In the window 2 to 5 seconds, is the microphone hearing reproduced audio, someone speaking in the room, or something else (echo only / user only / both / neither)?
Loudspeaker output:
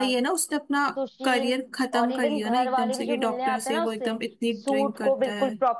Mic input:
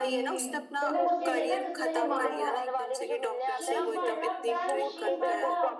both